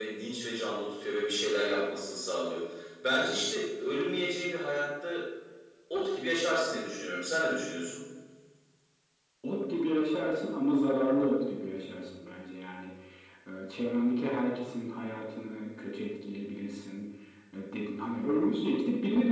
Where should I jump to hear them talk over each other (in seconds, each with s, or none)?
none